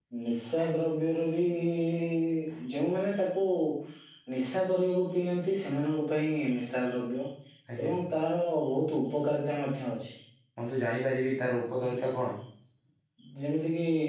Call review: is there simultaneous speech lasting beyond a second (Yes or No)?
No